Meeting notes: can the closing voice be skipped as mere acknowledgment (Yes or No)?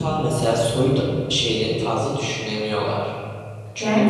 No